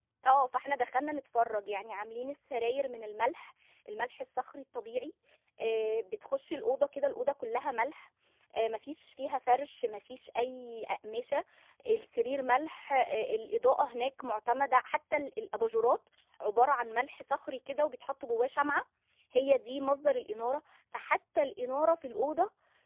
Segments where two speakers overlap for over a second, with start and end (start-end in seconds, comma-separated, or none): none